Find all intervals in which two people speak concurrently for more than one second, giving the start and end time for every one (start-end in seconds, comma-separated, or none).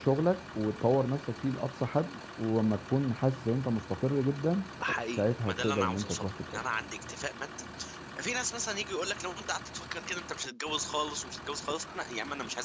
5.2-6.7